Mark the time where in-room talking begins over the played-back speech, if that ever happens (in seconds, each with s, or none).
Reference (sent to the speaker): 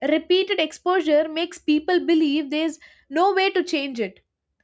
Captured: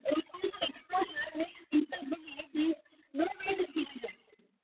none